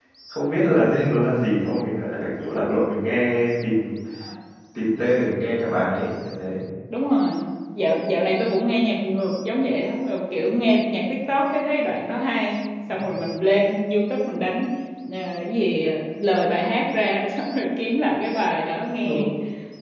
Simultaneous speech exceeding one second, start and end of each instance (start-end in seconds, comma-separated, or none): none